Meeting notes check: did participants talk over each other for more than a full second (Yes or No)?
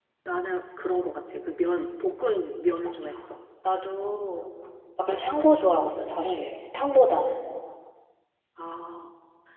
No